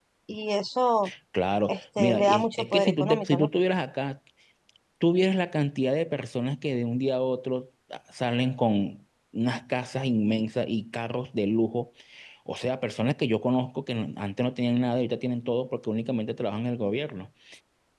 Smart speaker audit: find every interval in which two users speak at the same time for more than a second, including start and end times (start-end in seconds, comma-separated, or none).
1.7-3.5